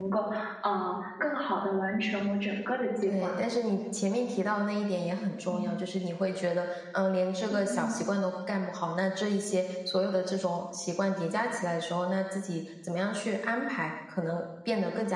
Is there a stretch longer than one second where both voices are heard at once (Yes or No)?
No